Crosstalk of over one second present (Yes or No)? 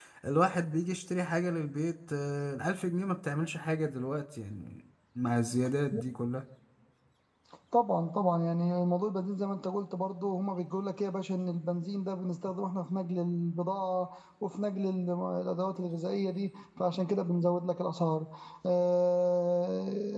No